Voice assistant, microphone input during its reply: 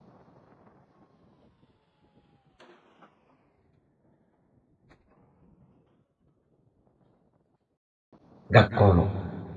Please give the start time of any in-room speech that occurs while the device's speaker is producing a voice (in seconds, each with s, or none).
8.5 s